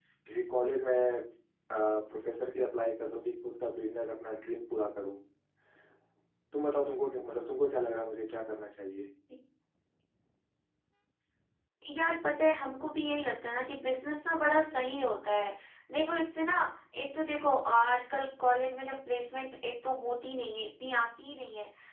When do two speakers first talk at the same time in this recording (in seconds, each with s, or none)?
none